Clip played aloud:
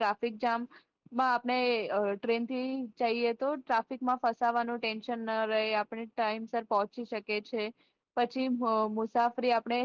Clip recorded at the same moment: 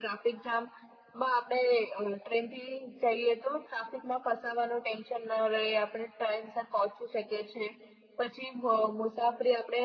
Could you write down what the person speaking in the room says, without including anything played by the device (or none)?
none